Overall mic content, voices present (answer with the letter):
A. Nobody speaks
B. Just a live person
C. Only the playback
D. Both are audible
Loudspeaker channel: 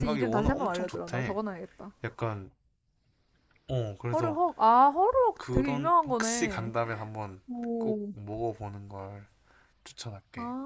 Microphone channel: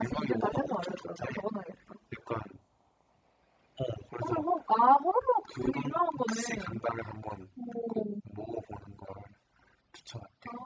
C